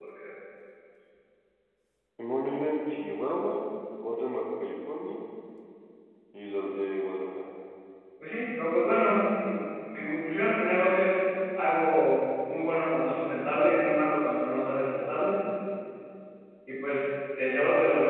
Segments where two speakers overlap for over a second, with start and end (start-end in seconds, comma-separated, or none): none